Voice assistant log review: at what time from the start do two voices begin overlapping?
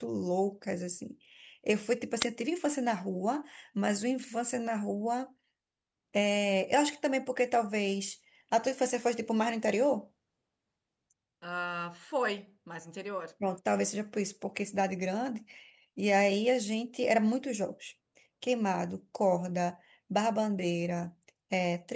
none

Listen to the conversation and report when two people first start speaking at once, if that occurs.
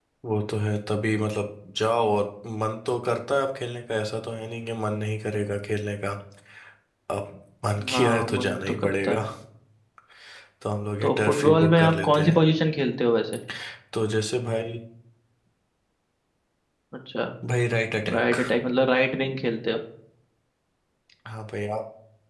7.9 s

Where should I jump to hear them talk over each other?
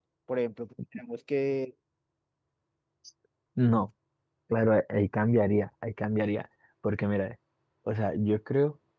none

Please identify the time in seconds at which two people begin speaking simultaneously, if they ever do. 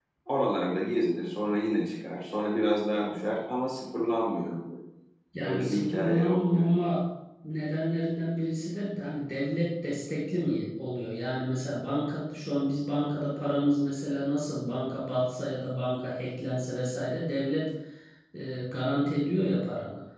5.4 s

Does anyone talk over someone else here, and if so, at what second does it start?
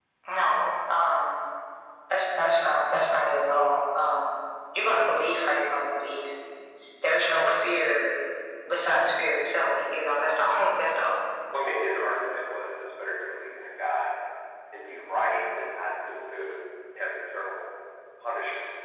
none

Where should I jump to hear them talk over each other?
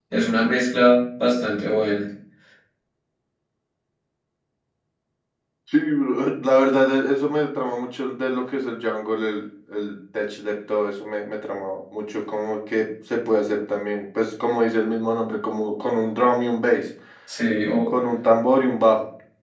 none

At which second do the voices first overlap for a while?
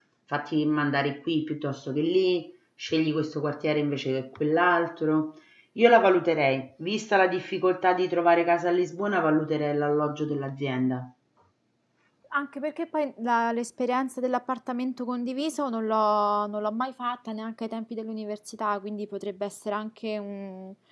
none

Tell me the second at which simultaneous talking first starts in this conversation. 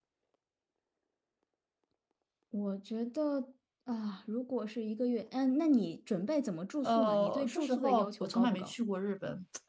6.8 s

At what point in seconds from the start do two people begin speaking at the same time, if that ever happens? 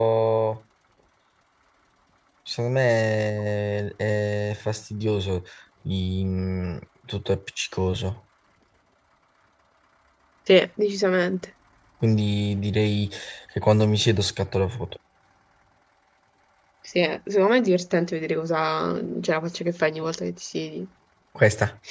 none

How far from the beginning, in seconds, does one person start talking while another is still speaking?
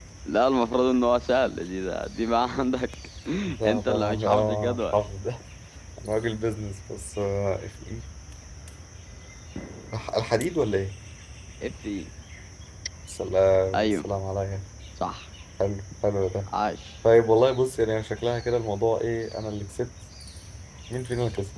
3.6 s

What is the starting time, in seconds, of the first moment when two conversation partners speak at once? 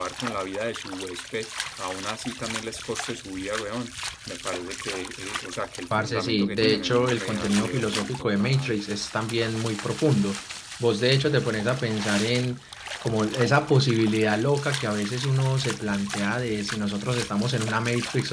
5.9 s

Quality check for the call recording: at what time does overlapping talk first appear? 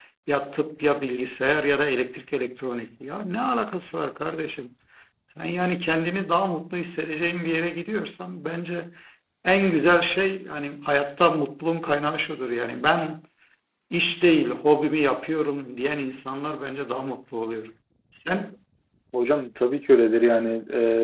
none

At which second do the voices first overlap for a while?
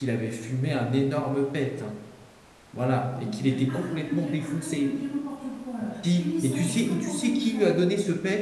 3.1 s

